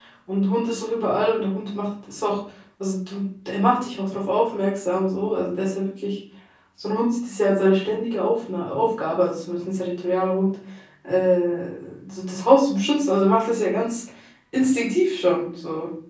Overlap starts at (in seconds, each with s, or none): none